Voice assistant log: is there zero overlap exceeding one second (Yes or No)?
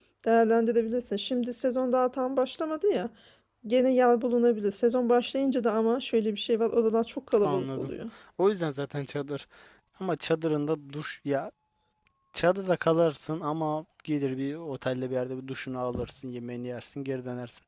Yes